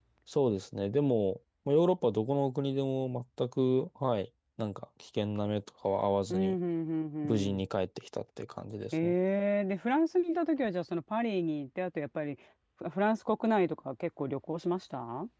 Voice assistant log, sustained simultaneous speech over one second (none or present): none